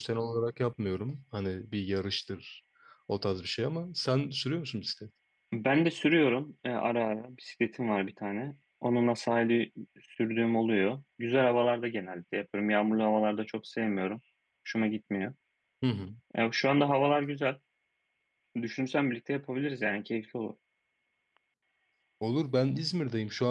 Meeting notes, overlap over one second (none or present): none